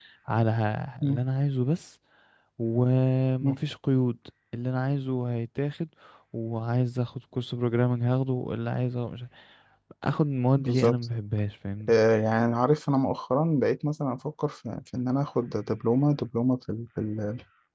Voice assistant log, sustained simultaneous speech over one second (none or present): none